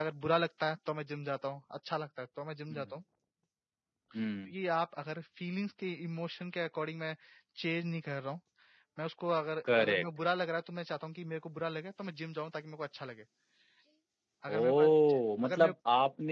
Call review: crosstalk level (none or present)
present